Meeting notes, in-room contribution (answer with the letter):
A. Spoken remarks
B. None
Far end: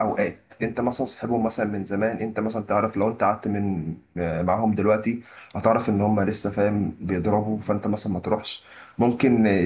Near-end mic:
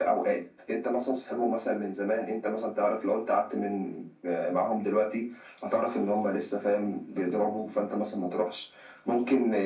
B